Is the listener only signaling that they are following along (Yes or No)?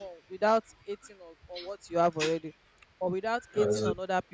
Yes